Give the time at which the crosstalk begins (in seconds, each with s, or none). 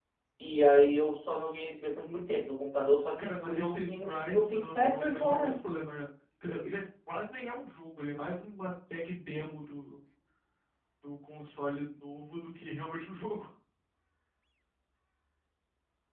3.2 s